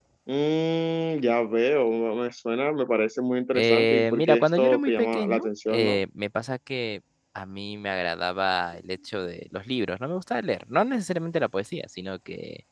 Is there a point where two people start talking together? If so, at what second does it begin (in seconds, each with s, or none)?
3.5 s